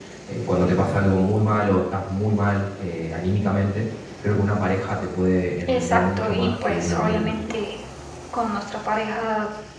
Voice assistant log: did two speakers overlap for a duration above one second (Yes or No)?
Yes